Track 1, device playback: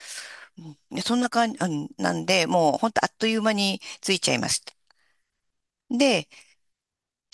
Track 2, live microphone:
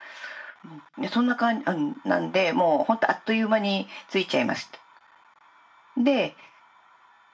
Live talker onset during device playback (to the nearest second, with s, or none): none